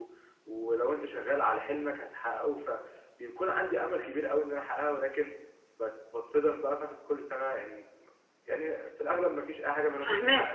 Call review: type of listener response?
taking over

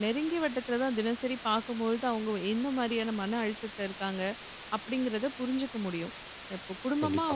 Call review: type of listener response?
listening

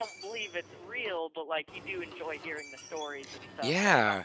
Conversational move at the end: taking over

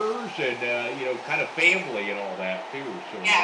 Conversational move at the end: taking over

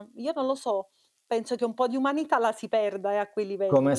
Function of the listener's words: taking over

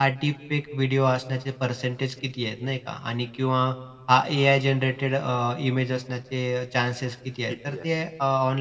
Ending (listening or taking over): listening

